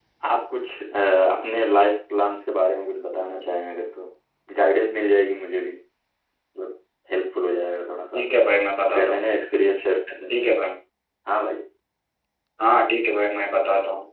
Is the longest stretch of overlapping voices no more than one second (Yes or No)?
Yes